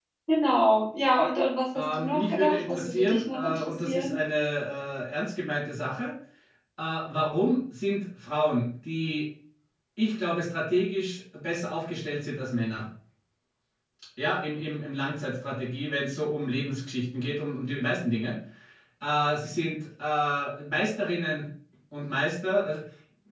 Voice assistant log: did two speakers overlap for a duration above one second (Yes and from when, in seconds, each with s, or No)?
Yes, from 1.7 s